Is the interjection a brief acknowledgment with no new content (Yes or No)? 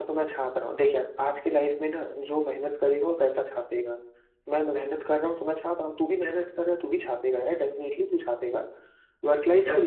Yes